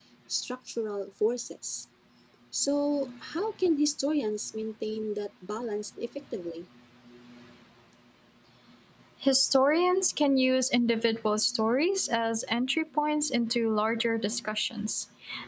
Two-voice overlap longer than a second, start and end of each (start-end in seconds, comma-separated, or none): none